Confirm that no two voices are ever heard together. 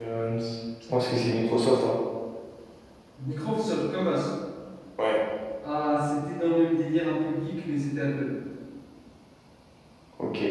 Yes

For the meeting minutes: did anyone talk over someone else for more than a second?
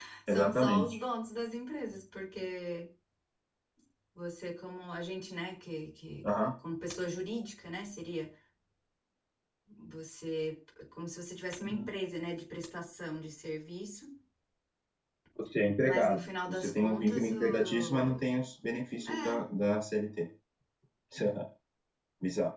Yes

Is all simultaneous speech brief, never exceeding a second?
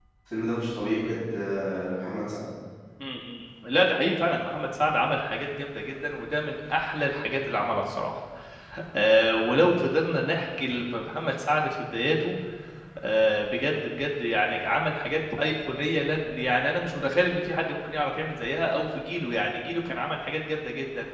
Yes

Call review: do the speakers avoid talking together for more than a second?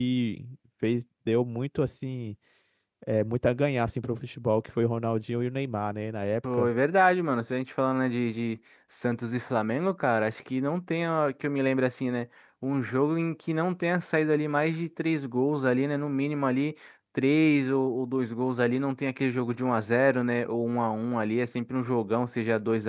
Yes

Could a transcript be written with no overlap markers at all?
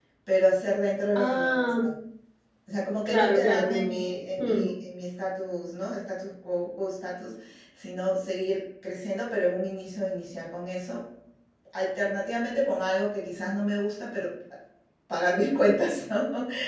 No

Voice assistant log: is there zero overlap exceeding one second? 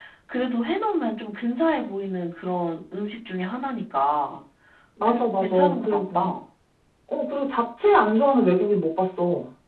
No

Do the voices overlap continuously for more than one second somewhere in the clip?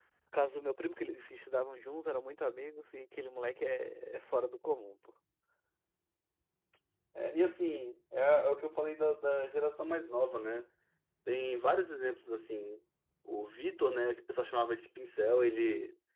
No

